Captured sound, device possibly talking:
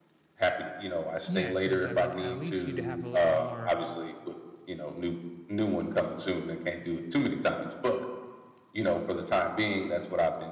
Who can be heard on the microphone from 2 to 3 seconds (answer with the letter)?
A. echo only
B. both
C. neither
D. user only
B